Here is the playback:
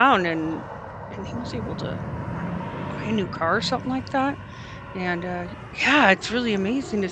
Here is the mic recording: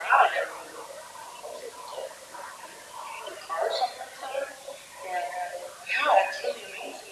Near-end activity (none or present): none